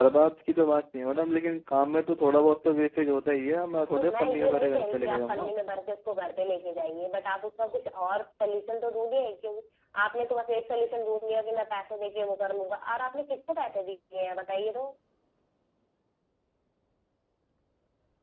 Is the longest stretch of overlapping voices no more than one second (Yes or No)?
No